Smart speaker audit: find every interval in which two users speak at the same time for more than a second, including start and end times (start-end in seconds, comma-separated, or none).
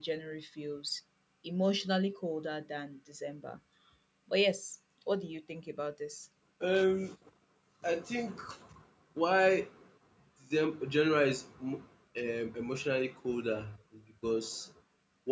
none